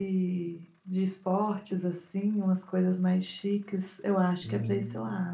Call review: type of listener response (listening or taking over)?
listening